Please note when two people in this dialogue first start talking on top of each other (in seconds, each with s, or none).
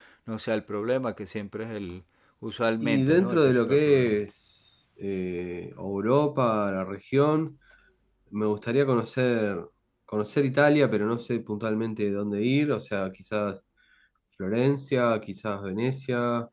2.8 s